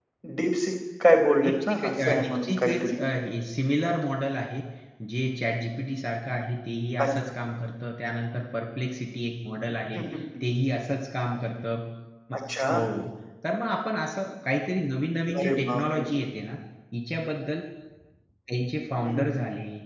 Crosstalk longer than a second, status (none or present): present